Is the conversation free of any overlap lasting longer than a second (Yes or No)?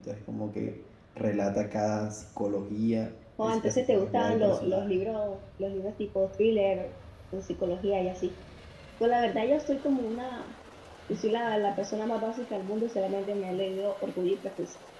No